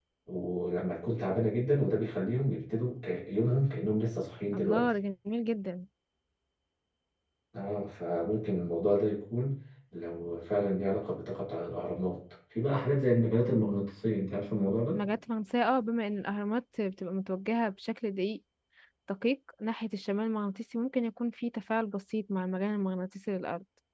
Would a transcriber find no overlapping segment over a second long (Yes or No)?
Yes